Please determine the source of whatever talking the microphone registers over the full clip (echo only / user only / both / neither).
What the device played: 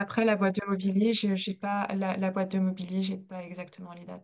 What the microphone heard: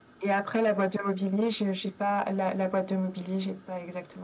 echo only